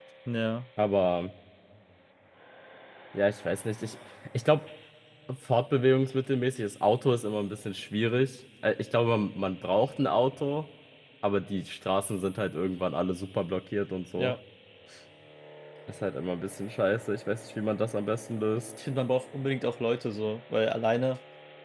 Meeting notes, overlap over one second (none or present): none